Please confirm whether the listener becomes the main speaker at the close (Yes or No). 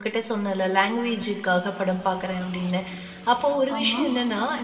No